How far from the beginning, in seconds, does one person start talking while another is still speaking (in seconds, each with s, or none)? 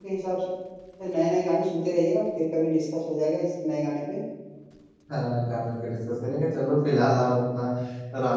none